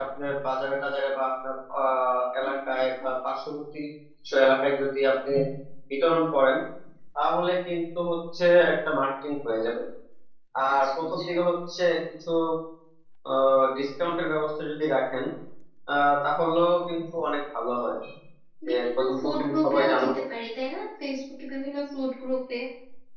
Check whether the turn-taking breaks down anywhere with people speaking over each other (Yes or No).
Yes